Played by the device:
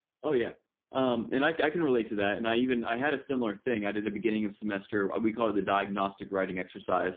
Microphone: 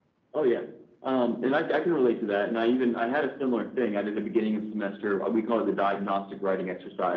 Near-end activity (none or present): none